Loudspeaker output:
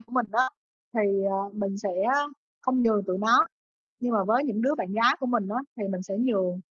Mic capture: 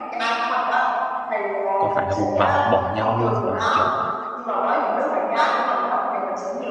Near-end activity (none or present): present